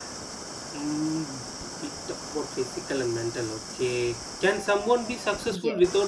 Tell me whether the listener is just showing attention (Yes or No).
Yes